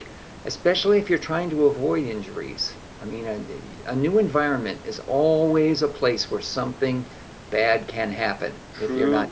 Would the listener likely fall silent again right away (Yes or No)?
No